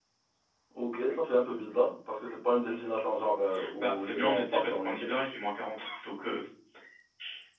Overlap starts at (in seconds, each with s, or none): 3.8 s